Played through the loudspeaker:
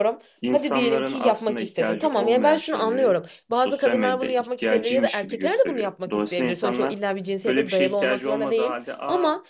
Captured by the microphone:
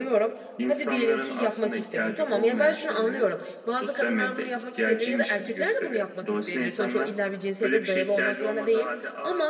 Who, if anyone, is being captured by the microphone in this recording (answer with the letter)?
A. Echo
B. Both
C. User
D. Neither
A